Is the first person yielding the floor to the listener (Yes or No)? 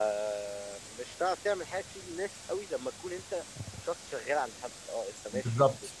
No